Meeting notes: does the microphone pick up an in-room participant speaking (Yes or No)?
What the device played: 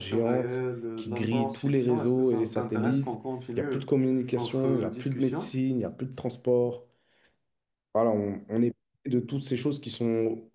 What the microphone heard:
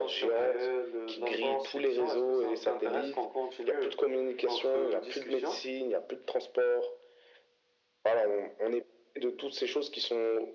No